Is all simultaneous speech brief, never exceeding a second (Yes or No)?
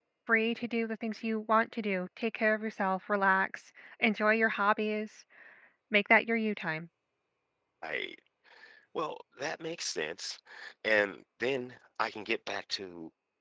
Yes